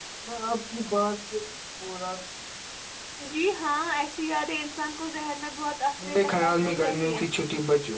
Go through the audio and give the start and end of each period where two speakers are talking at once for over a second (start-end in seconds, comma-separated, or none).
6.0-7.2